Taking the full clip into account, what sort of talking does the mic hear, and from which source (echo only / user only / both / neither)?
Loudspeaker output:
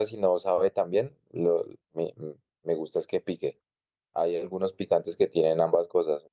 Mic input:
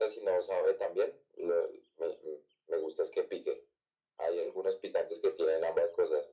echo only